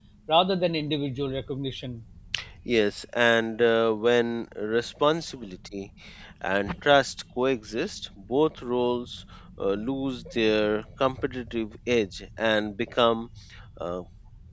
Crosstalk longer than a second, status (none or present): none